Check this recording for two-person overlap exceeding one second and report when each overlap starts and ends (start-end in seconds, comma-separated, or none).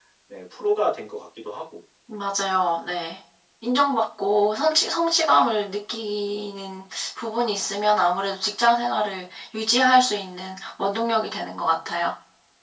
none